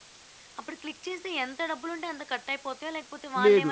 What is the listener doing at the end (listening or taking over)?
taking over